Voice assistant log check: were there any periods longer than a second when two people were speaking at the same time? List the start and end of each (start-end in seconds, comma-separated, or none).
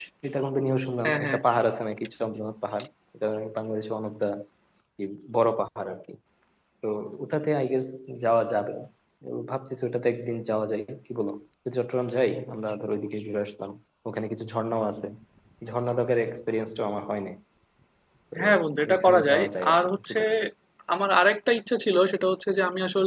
18.9-20.2